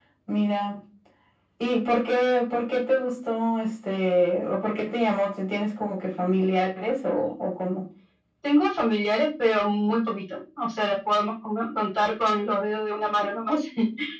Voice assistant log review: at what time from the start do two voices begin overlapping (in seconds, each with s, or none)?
none